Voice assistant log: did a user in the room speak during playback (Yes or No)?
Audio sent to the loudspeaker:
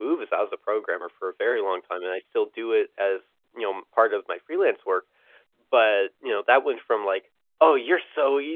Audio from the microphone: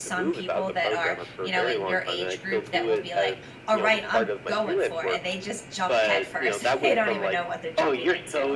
Yes